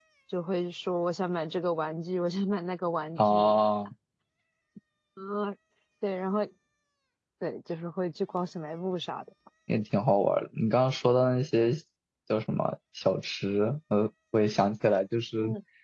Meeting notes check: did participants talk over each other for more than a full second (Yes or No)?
No